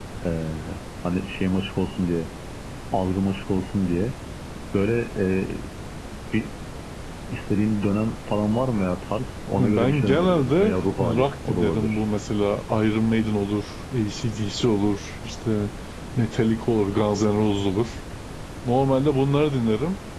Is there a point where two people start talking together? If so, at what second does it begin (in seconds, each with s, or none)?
9.6 s